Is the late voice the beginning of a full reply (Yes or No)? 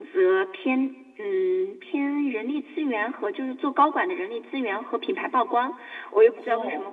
No